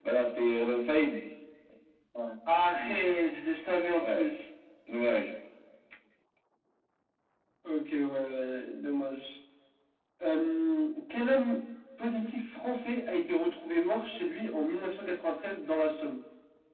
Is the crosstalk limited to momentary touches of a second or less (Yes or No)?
Yes